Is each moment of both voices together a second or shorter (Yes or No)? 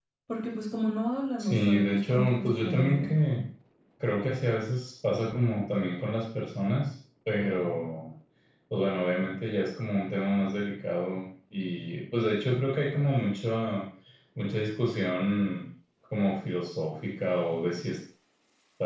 No